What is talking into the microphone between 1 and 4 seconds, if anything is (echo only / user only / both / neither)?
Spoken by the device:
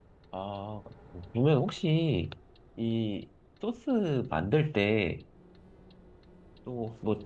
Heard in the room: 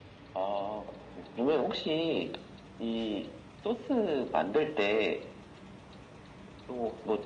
echo only